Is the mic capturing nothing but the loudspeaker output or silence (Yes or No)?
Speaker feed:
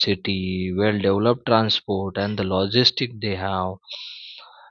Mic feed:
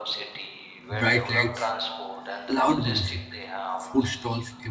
No